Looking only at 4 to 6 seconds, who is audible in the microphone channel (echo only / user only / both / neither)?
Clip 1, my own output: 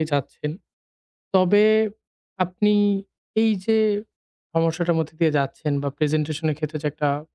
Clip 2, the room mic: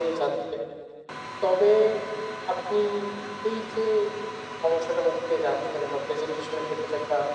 echo only